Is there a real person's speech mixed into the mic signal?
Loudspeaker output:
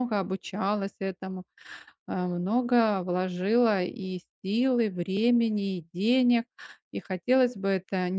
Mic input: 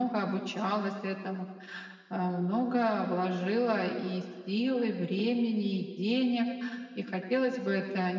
No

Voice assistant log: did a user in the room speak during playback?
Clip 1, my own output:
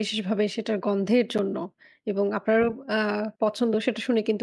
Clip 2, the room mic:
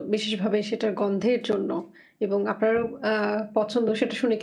No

